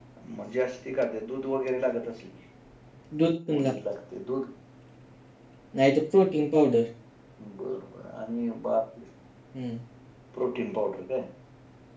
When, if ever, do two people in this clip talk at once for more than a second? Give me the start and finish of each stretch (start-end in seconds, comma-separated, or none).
none